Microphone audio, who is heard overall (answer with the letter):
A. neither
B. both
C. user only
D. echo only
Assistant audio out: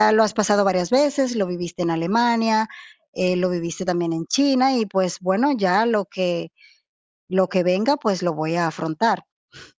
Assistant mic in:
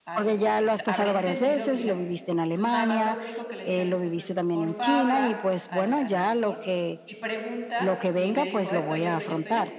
B